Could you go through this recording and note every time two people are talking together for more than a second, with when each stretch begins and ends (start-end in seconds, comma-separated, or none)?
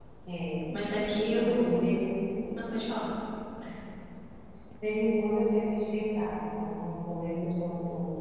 none